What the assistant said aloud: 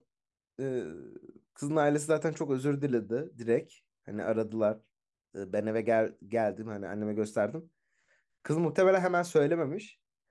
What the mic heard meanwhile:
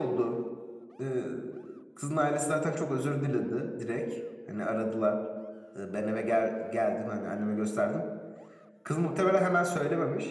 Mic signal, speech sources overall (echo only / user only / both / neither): echo only